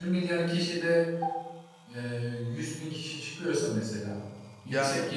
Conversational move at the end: listening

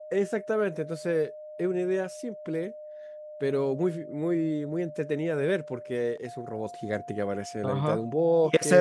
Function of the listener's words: taking over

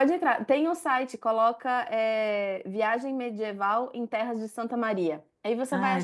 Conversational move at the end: listening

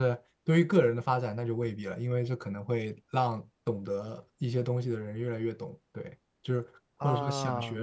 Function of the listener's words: listening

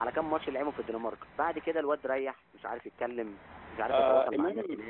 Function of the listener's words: taking over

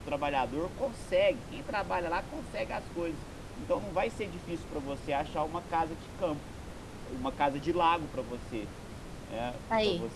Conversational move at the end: listening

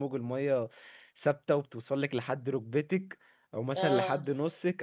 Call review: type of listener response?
listening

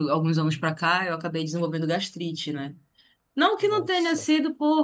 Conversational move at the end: listening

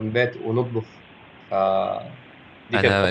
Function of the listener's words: taking over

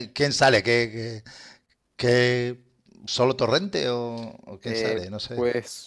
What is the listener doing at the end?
taking over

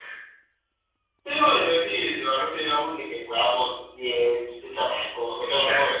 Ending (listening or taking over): listening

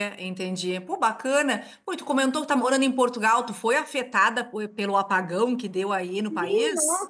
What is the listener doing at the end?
taking over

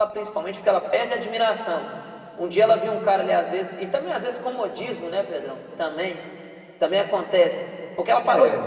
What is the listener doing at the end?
listening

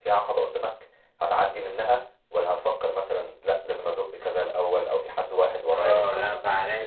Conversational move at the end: taking over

